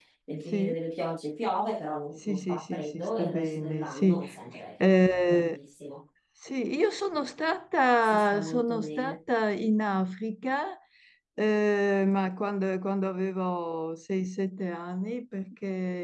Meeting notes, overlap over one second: present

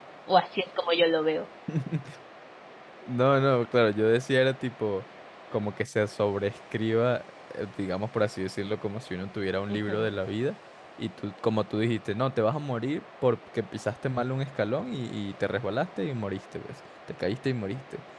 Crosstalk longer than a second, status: none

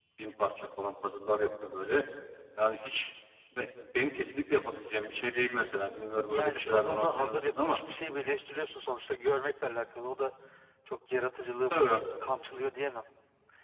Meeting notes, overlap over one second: present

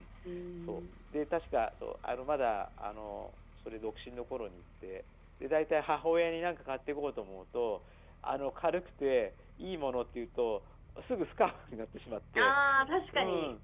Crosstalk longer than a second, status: none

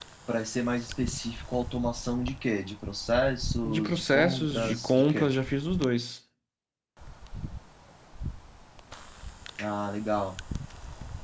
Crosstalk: present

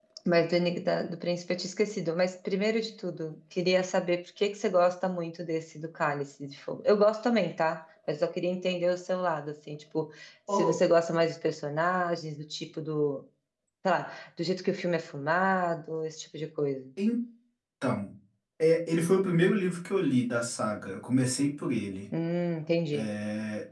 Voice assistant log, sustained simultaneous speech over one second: none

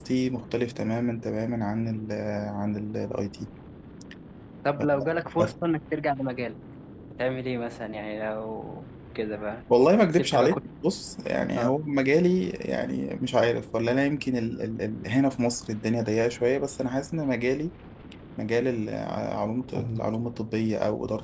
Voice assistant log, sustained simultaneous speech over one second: none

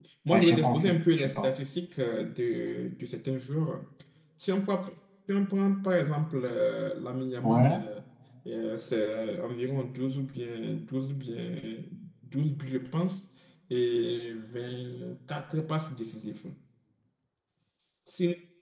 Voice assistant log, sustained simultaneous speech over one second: present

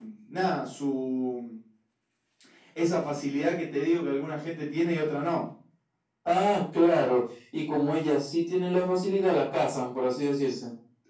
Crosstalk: none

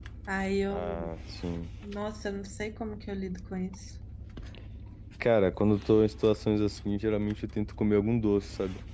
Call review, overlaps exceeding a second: none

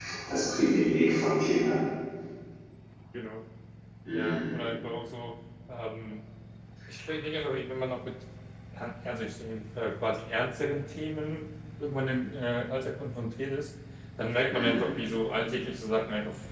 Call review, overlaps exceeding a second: none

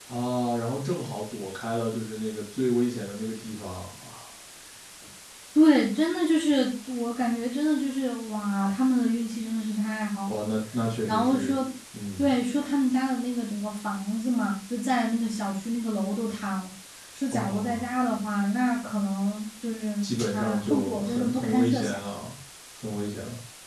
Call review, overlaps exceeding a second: present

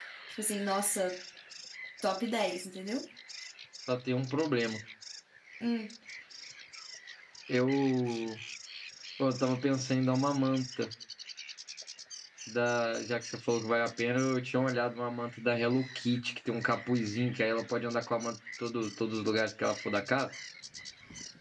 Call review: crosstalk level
none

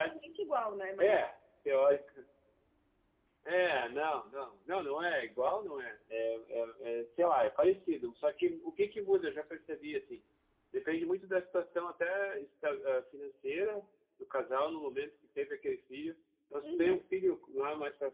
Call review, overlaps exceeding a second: none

